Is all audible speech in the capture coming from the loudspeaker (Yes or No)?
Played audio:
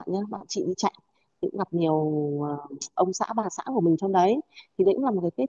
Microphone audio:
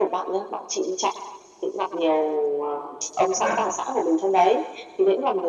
No